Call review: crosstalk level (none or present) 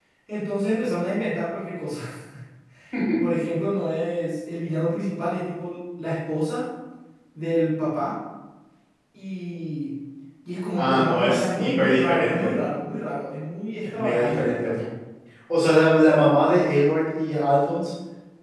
present